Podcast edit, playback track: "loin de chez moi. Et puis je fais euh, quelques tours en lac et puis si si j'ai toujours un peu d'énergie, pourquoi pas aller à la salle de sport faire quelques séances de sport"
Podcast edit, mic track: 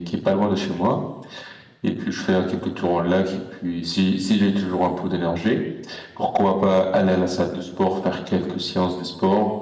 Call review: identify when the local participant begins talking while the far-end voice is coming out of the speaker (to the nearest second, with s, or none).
none